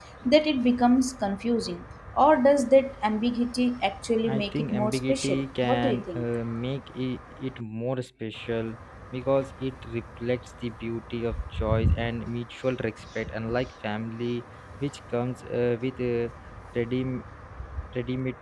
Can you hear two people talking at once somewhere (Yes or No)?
Yes